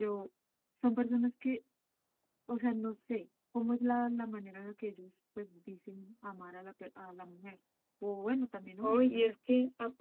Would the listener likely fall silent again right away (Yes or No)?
No